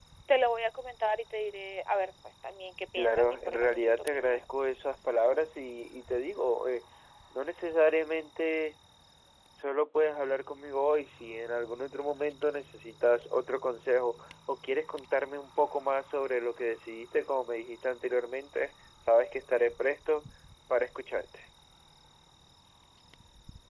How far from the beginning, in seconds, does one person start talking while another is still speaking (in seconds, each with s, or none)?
2.9 s